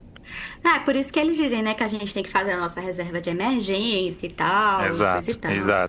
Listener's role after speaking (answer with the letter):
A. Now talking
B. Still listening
A